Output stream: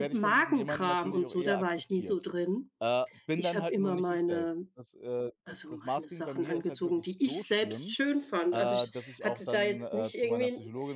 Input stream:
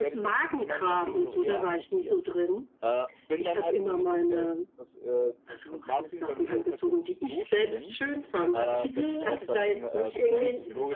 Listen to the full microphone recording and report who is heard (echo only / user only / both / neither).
both